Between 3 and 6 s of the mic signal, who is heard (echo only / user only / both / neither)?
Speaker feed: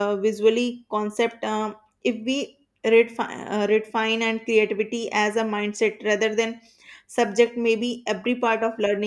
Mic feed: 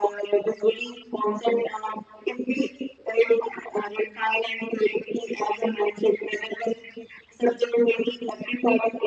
echo only